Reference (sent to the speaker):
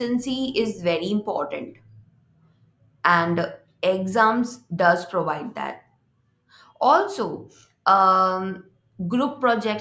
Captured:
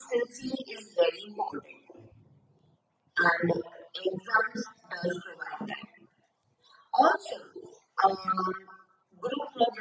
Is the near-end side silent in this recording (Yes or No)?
Yes